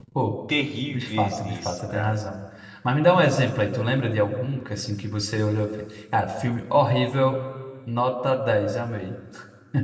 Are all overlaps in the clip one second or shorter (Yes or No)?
No